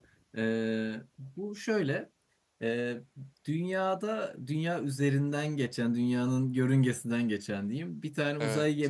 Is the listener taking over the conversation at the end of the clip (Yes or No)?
No